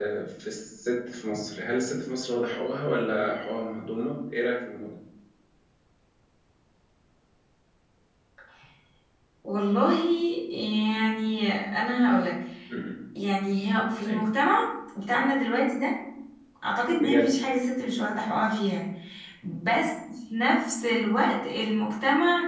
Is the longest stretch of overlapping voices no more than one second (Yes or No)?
Yes